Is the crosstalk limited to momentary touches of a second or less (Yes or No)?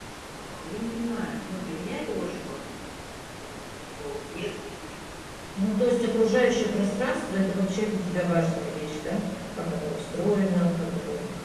Yes